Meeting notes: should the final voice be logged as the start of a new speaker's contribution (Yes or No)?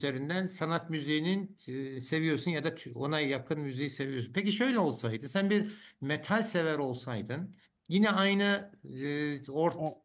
No